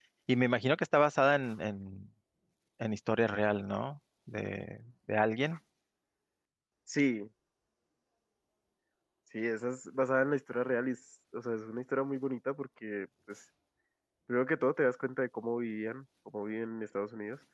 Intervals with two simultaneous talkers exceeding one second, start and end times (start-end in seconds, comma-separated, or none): none